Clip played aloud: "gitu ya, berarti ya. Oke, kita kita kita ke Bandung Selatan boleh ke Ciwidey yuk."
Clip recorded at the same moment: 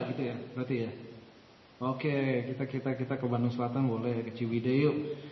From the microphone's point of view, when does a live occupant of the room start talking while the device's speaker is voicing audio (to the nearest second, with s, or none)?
none